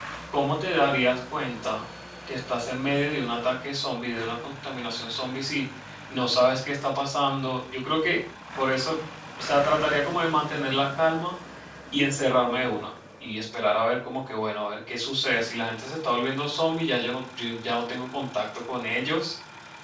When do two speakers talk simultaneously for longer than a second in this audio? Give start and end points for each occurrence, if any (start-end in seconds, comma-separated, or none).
none